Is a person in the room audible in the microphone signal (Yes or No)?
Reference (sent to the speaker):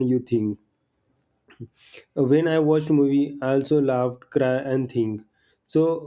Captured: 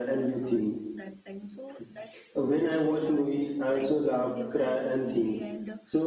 Yes